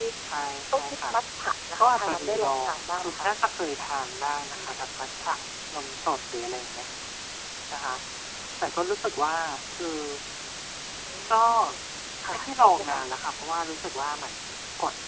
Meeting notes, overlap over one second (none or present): present